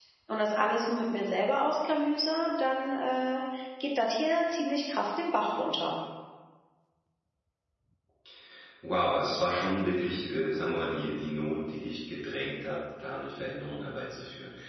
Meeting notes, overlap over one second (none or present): none